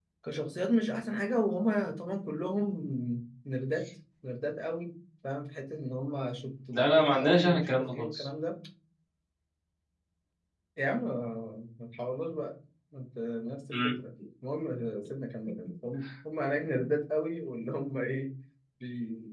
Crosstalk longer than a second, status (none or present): present